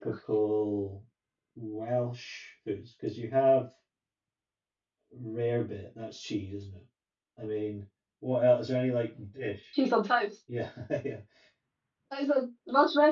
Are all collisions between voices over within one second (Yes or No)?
Yes